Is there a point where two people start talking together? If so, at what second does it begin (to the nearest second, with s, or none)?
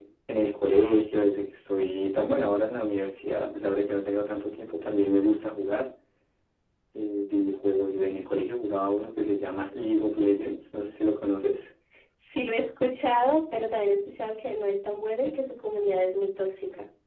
none